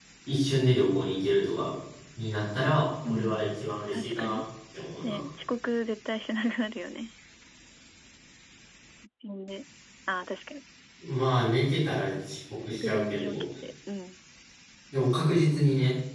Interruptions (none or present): present